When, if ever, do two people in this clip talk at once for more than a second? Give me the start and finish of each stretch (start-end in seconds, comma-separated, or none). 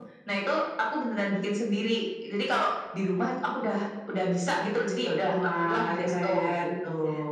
5.3-6.7